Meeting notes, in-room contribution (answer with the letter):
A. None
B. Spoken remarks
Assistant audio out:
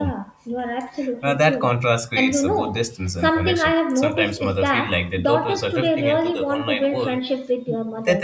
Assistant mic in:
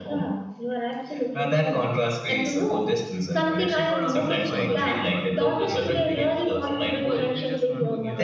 B